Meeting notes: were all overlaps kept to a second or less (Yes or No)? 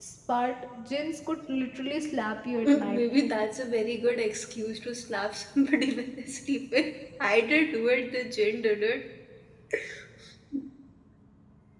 Yes